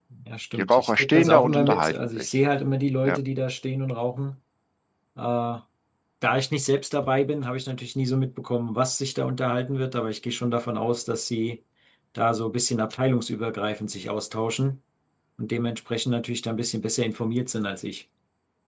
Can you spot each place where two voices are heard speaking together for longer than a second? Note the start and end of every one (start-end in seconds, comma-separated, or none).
0.6-2.2